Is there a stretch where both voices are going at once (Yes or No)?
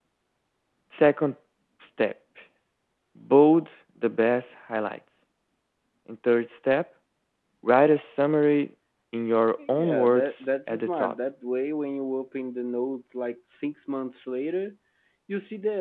Yes